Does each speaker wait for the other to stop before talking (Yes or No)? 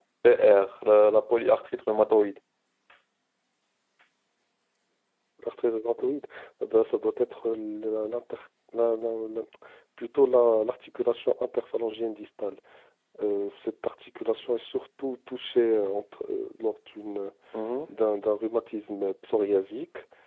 Yes